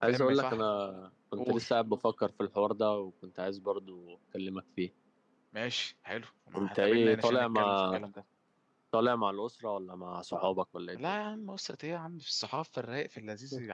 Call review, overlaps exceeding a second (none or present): present